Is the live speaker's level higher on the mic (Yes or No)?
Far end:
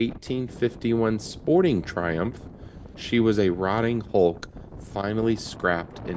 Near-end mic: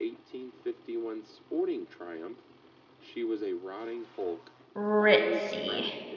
Yes